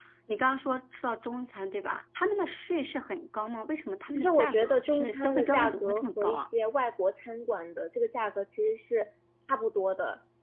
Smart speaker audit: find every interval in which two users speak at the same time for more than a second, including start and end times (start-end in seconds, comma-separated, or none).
4.2-6.4